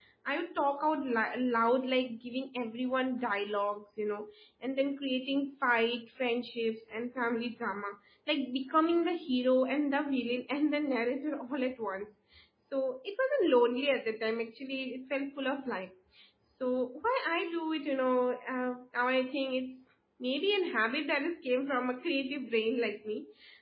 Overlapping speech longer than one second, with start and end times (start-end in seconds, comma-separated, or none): none